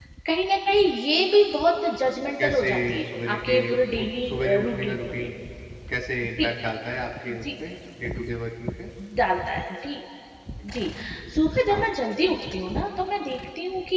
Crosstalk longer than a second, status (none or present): present